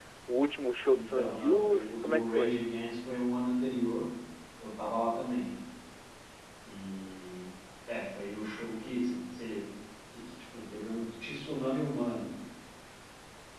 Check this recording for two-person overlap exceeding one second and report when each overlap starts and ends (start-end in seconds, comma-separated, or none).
0.9-2.5